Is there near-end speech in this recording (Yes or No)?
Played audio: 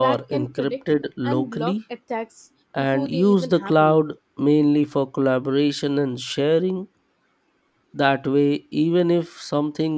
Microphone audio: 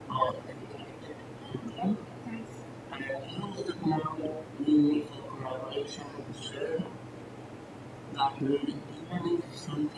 No